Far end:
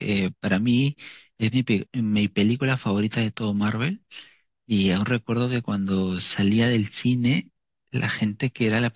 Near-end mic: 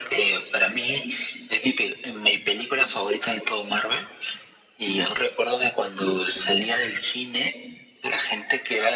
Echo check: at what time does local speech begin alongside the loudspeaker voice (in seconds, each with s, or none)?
none